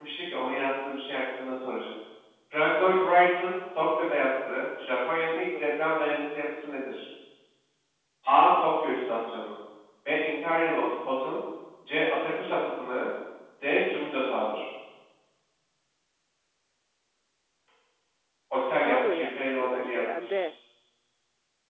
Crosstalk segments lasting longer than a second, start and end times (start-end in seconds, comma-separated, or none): 18.8-20.4